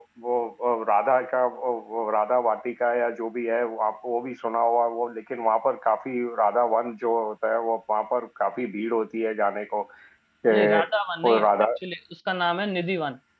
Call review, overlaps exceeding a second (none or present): none